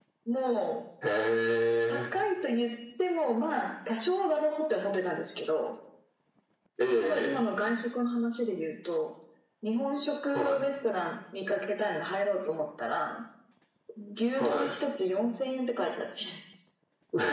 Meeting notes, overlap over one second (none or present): none